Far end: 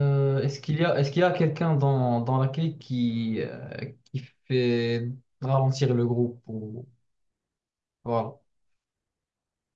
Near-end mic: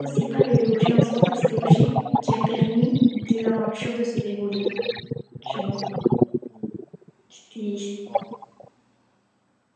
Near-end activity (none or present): present